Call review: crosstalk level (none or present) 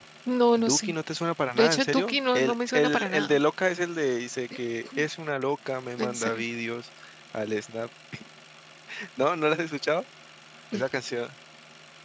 present